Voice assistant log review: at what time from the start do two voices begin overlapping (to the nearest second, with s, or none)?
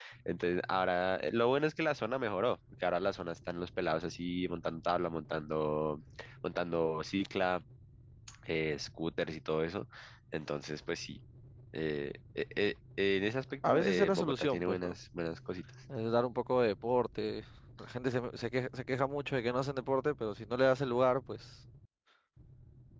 14 s